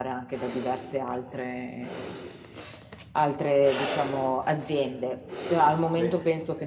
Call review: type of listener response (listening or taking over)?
listening